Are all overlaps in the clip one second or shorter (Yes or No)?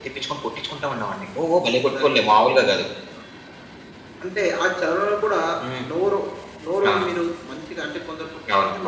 Yes